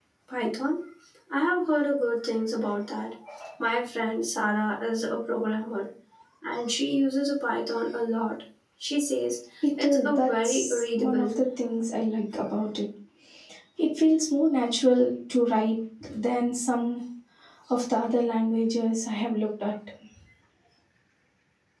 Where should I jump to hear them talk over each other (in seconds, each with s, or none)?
9.6 s